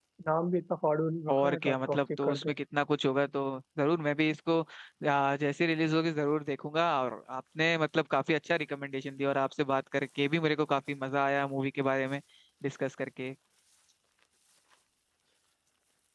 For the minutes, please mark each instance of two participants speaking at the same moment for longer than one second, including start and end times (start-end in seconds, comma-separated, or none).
1.3-2.5